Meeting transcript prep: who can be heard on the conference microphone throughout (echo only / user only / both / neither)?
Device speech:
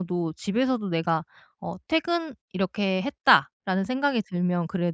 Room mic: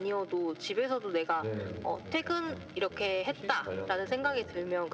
both